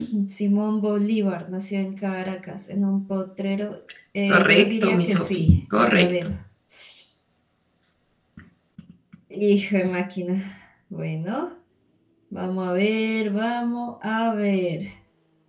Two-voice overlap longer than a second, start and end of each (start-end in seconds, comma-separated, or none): 4.3-6.3